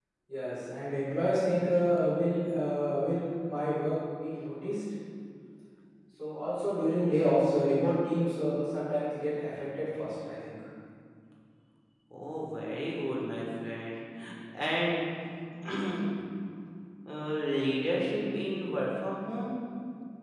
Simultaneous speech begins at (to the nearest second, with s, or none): none